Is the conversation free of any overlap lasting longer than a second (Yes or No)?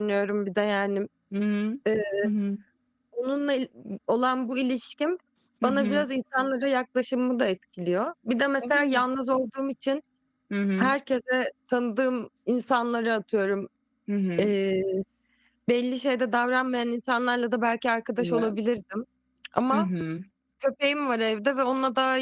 Yes